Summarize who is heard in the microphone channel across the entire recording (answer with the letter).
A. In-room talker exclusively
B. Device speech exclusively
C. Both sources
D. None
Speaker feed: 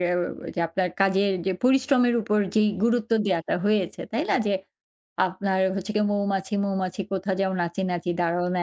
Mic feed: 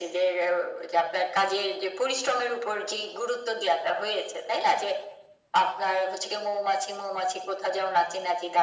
B